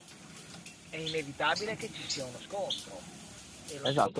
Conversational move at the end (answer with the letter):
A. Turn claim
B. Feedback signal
A